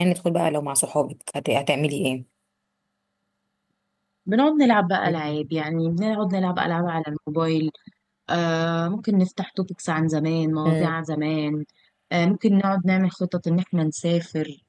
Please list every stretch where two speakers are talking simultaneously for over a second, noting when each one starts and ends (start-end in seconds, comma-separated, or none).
none